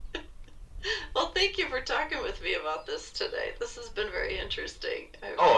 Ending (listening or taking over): taking over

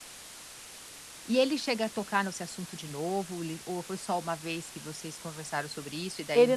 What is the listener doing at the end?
taking over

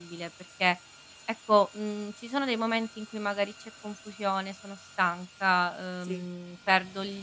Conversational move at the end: listening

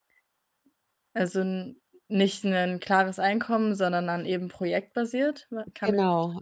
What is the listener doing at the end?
taking over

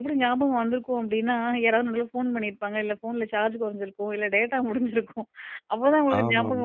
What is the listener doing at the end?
listening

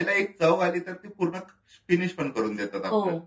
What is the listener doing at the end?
taking over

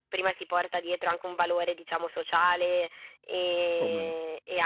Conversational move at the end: listening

